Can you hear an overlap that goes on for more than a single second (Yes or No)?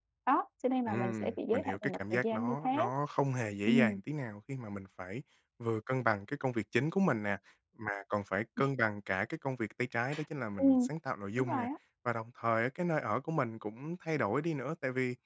Yes